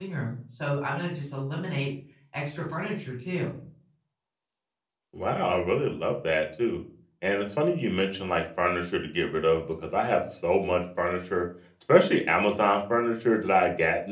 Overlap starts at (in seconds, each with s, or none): none